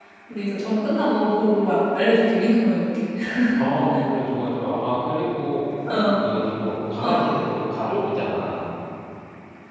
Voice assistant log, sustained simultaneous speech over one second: none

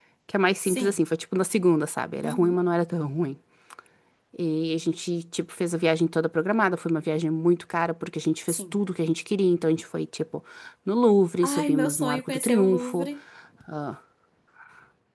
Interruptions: present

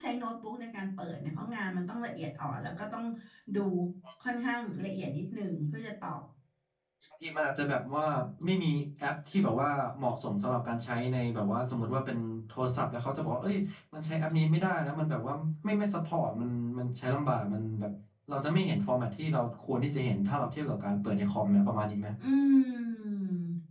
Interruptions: none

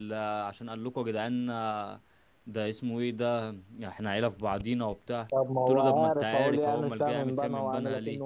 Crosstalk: present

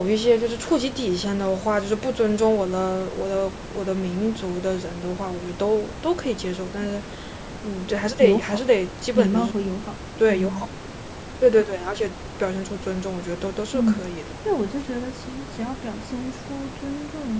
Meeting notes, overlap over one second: none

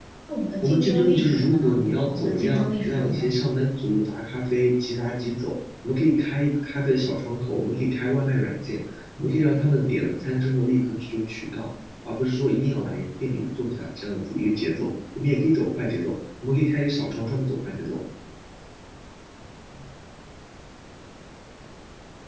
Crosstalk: present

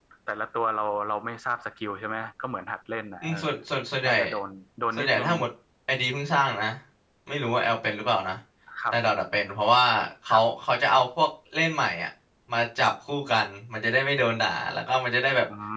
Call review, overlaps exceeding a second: none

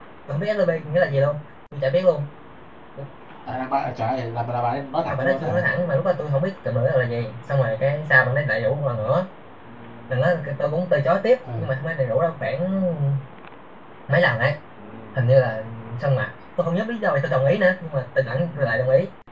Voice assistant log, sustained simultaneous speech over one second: none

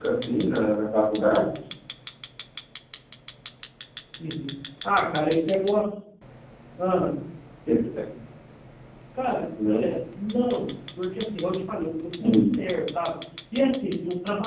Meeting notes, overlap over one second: none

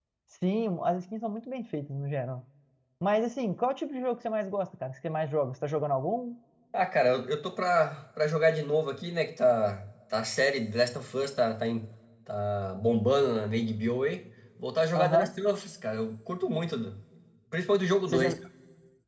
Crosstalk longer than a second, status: none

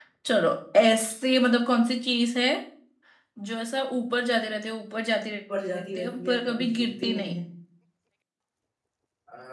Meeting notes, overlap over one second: present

